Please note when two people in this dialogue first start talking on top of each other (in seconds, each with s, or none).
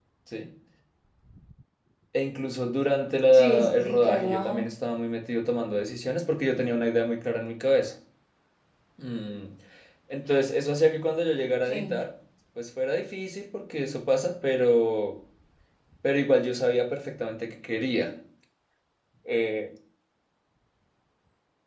3.3 s